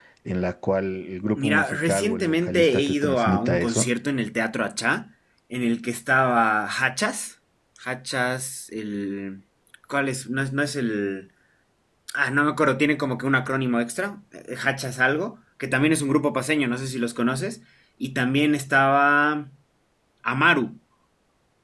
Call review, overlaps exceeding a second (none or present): present